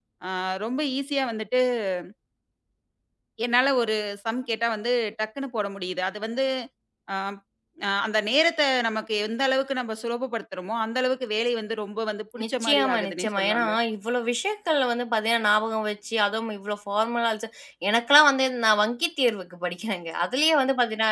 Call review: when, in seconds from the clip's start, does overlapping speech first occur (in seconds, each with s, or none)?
12.4 s